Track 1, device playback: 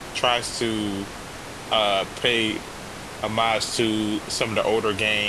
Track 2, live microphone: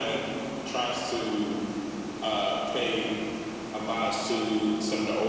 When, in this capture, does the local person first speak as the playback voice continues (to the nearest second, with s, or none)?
none